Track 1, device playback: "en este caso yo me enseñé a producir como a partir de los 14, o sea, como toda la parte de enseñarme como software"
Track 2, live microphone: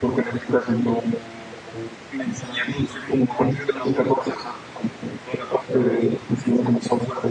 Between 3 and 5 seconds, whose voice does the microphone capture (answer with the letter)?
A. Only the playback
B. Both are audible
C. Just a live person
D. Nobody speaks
A